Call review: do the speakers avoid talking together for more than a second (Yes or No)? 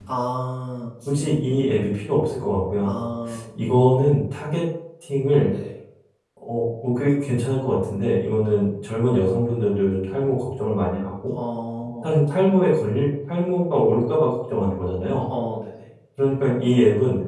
Yes